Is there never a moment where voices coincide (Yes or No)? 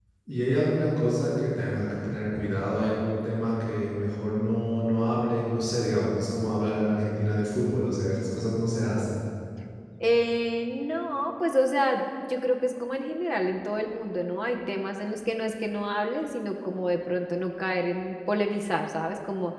Yes